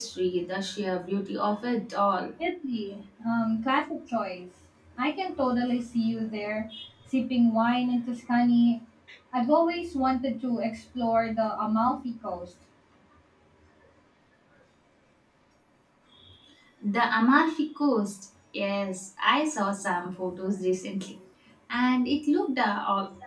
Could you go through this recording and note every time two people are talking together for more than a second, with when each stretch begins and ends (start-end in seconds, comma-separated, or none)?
none